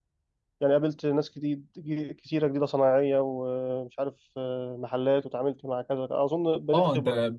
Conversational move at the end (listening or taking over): taking over